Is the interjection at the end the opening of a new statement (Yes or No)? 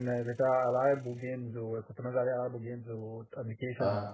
No